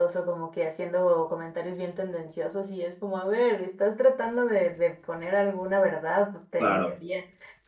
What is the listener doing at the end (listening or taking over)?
listening